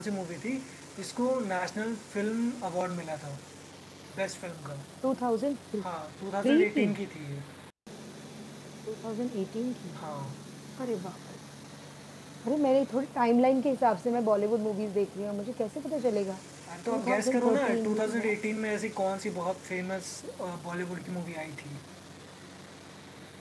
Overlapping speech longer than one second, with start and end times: 16.9-18.3

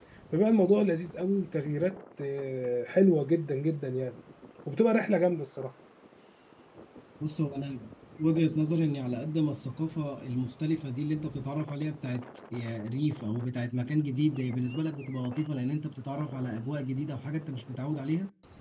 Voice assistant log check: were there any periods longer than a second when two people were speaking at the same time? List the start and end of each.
none

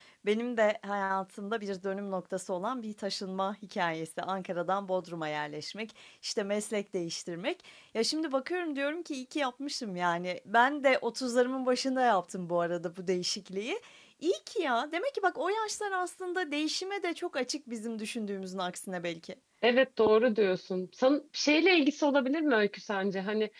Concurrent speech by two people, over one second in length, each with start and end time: none

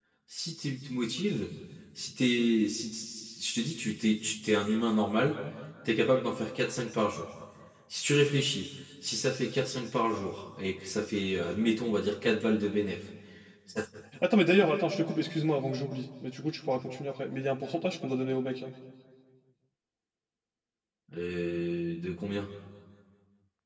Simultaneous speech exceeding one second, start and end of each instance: none

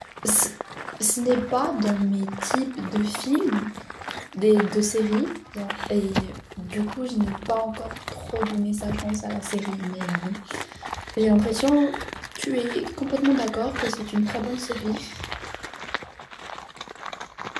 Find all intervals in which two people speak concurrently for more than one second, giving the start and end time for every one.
none

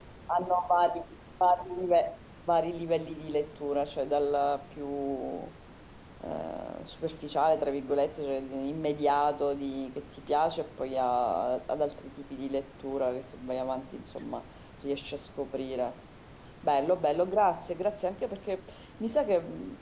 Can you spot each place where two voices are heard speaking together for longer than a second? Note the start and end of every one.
none

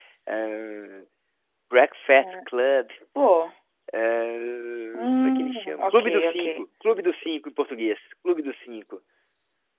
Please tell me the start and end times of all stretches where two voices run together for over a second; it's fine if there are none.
5.2-6.4

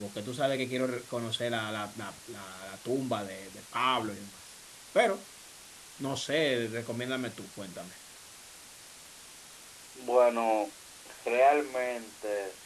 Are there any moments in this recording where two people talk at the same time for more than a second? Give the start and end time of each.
none

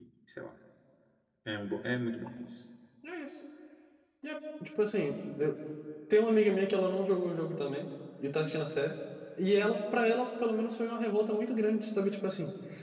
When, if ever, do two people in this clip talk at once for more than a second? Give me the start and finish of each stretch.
none

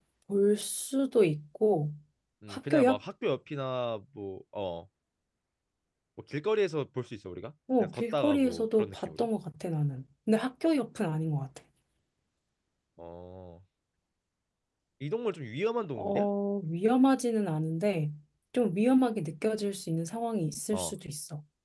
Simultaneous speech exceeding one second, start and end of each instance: 7.8-9.3

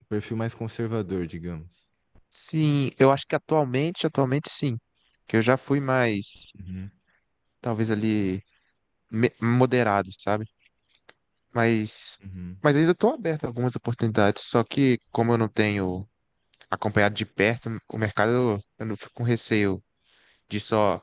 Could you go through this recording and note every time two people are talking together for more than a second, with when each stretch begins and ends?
none

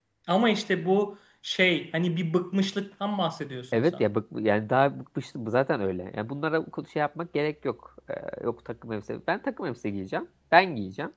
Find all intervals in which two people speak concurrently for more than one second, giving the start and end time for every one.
none

